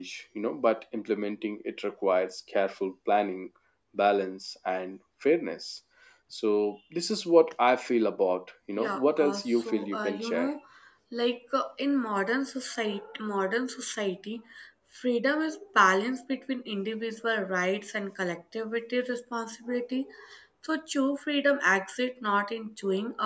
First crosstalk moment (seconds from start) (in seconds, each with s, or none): 8.8 s